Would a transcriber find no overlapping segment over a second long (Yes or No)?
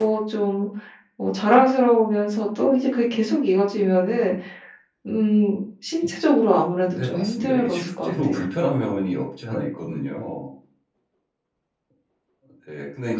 No